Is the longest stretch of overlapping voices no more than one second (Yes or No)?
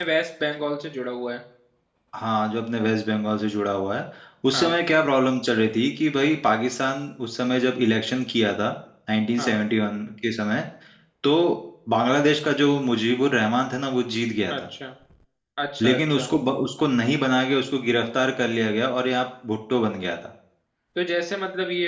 Yes